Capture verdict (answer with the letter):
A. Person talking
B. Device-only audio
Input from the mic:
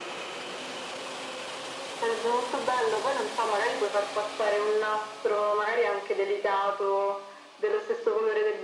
B